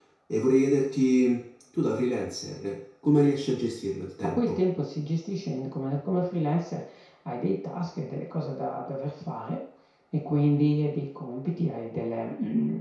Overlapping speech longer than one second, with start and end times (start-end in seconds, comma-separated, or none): none